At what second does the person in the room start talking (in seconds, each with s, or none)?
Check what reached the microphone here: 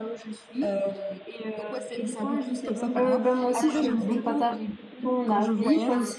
3.0 s